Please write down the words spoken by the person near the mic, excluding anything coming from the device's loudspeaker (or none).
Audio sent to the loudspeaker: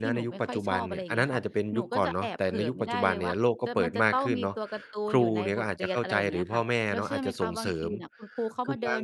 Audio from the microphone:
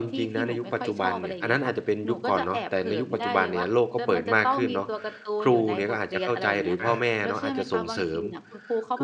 อา